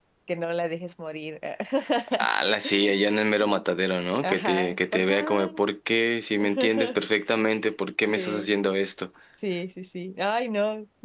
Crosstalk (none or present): present